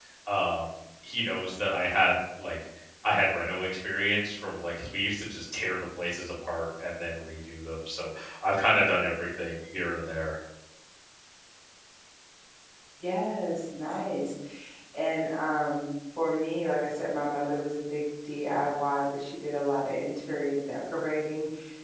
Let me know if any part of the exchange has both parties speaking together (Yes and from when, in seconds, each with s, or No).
No